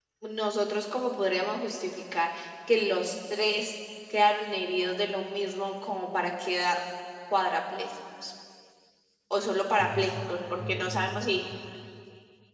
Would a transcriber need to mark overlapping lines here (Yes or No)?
Yes